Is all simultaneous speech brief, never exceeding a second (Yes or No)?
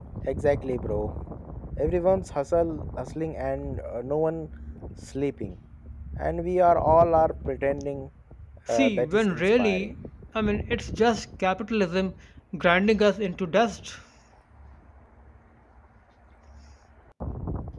No